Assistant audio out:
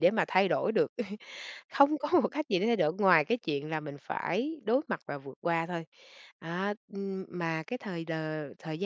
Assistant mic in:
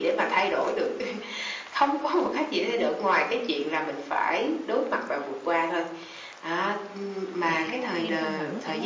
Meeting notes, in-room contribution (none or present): present